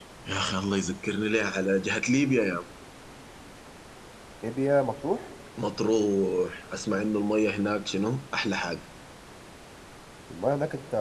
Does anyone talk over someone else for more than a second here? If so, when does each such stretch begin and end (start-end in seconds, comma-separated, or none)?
none